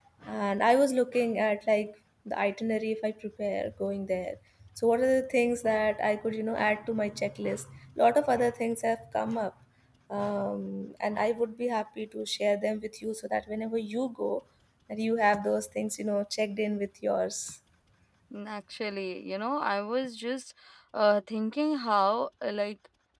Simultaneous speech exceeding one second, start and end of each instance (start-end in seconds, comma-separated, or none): none